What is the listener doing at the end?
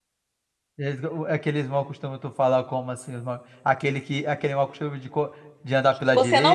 taking over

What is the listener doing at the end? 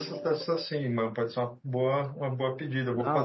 taking over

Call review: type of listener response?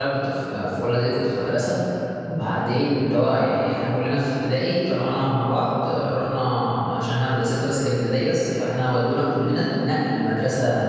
listening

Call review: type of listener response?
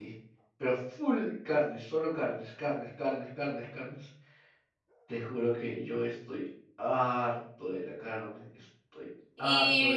taking over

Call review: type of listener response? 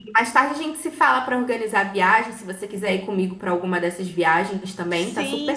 taking over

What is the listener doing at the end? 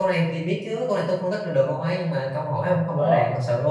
taking over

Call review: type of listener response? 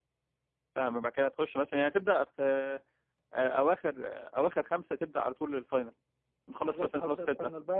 taking over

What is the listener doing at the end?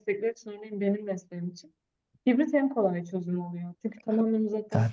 taking over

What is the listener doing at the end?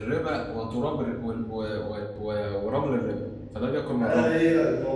taking over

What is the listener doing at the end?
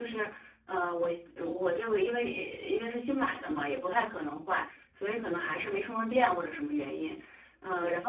listening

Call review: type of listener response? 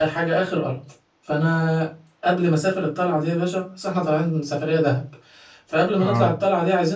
listening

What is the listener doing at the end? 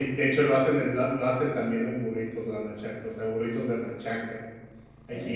listening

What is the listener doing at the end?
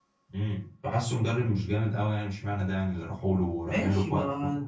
taking over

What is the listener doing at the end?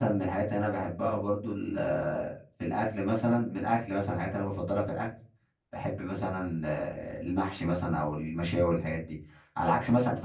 listening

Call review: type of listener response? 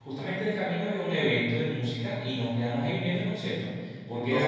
listening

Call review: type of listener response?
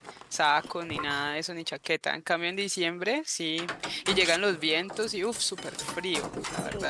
taking over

